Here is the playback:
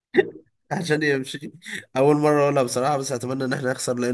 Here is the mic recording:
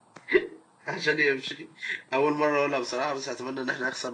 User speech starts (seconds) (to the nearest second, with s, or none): none